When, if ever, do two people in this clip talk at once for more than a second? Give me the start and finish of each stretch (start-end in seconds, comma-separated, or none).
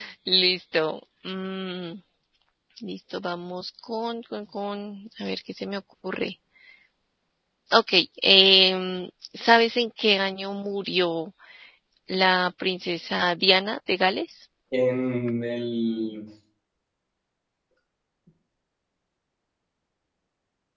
none